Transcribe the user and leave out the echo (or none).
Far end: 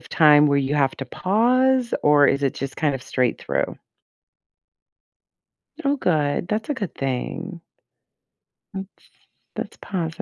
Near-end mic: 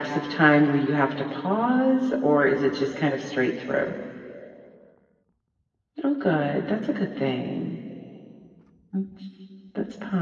none